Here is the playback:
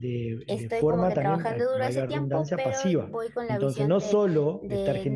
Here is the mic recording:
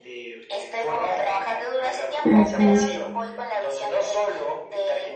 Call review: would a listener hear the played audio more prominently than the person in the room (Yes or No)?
No